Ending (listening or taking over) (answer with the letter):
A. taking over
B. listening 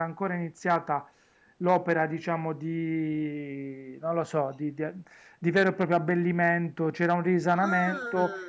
B